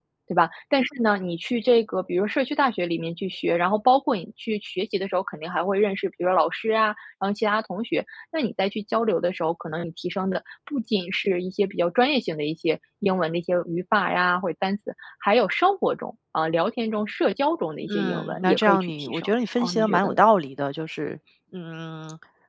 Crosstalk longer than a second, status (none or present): present